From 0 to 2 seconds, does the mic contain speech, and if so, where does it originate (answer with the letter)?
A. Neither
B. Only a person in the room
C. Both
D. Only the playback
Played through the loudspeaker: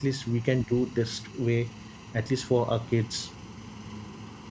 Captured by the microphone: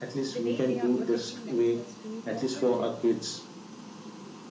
C